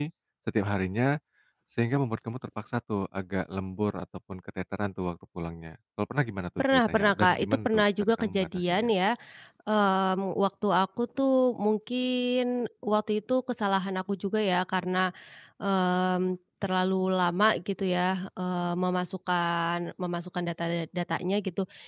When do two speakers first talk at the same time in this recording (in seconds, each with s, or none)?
6.6 s